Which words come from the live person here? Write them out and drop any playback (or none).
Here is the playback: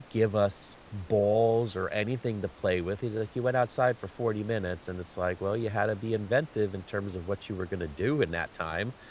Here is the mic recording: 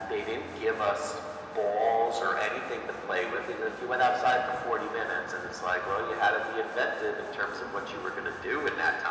none